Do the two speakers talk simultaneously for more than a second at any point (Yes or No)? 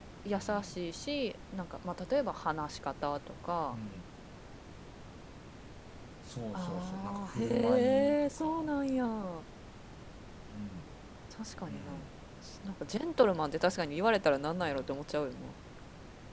Yes